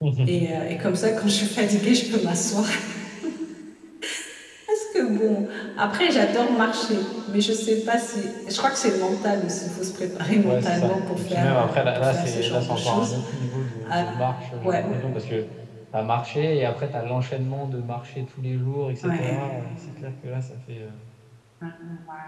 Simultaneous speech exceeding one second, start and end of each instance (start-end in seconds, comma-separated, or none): 10.4-13.1